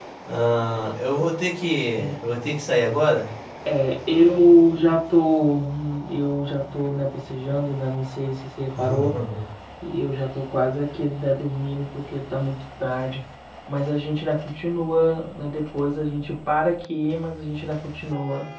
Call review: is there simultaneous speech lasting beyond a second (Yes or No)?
No